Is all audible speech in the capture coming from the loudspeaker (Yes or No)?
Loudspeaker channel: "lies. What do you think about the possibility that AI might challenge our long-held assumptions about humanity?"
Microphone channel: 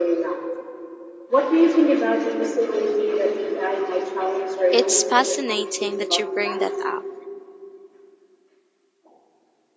No